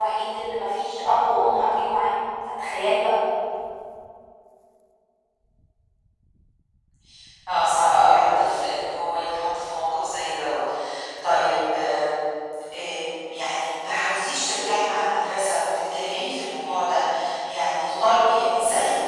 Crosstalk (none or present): none